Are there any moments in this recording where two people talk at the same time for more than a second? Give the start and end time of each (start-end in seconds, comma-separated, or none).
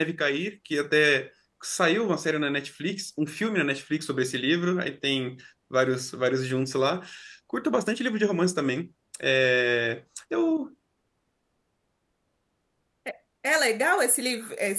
none